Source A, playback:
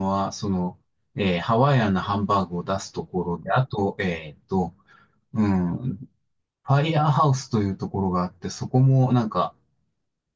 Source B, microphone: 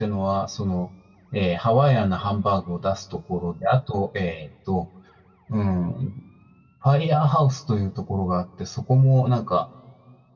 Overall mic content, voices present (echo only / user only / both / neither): echo only